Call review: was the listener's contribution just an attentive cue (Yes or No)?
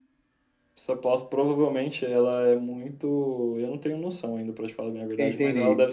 Yes